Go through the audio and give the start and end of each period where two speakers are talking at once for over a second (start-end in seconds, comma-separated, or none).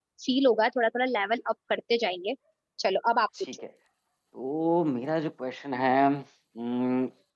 none